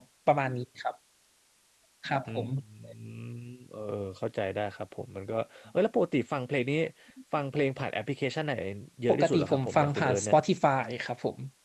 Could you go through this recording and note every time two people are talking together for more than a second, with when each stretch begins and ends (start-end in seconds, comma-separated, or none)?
9.1-10.4